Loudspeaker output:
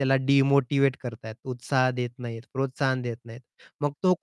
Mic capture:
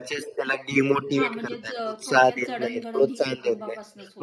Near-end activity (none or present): present